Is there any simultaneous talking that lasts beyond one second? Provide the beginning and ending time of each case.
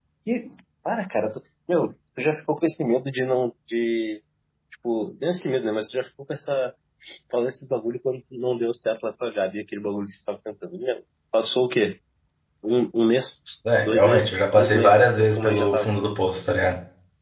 13.8-15.9

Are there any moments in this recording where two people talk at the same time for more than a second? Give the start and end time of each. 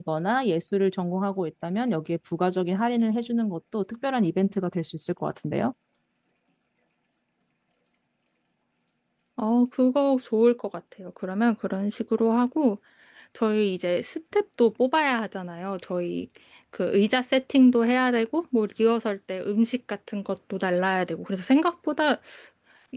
none

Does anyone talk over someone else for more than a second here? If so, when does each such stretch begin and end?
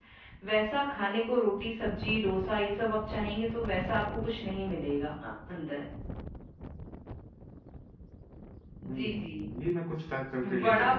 none

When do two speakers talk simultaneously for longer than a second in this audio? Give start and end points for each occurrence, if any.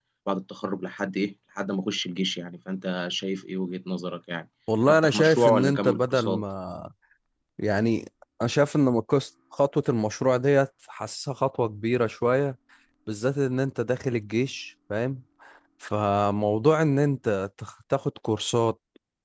4.9-6.4

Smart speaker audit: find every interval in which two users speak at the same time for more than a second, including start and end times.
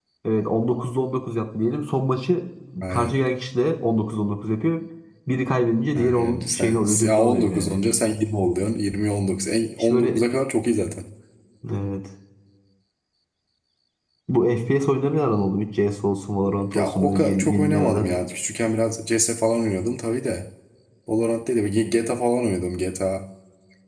5.9-7.8, 16.7-18.1

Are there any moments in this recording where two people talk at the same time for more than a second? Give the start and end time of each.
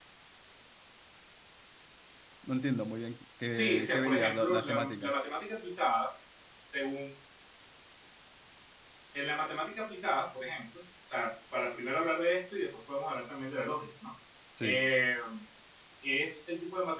3.5-5.1

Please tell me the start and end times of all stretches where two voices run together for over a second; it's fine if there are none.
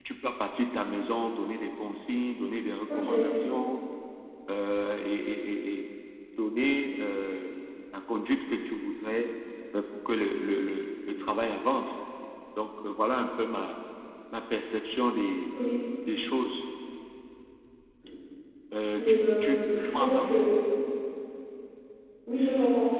19.0-20.3

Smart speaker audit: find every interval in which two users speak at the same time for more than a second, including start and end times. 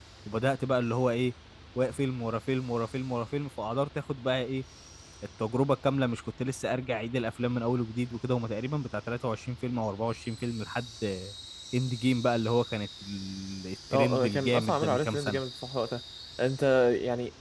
13.9-15.4

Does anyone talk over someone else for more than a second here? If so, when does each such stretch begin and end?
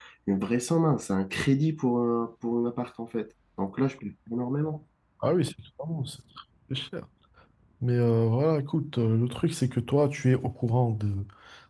none

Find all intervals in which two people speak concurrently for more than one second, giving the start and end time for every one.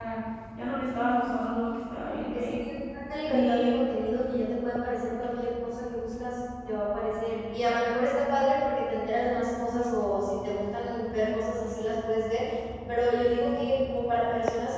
none

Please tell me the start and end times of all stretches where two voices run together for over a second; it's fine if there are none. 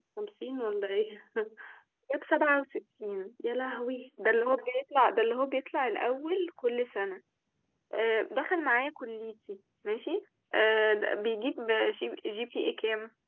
none

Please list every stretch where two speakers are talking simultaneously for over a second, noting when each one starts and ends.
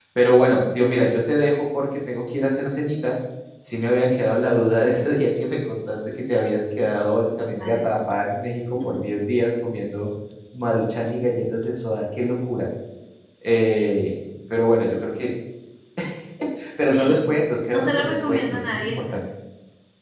17.7-19.0

